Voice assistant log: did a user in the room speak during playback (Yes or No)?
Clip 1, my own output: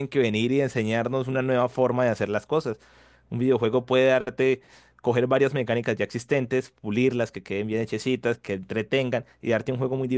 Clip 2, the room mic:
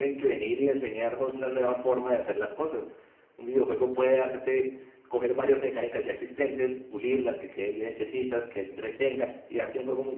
No